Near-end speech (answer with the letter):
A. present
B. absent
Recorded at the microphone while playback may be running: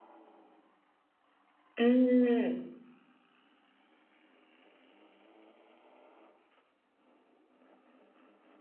A